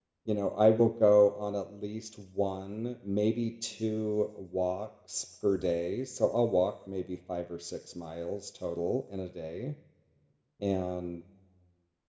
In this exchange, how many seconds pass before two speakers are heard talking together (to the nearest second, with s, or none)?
none